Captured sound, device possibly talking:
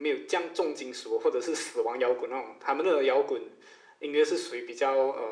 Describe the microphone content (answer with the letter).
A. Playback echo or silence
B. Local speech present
A